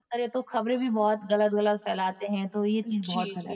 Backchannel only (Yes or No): No